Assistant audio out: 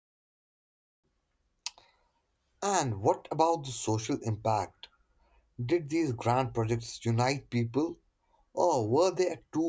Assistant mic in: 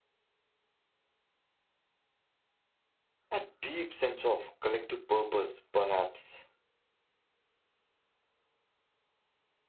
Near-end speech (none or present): present